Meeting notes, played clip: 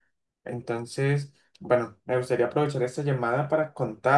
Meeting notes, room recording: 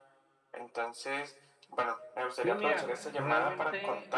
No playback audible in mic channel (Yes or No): No